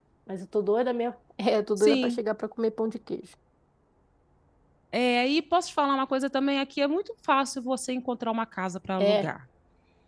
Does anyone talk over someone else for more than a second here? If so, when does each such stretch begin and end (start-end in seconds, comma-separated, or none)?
none